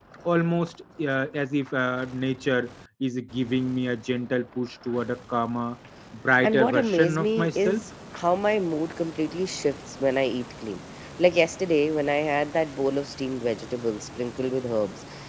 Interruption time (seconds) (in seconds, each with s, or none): 6.4 s